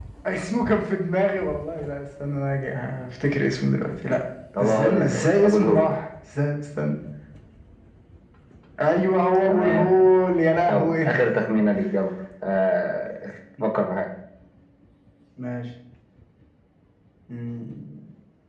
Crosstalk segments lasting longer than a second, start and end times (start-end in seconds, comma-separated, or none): 4.6-5.9